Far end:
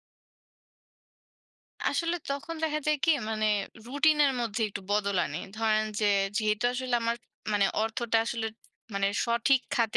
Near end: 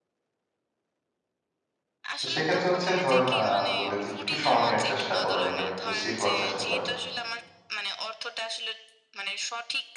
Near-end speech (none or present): present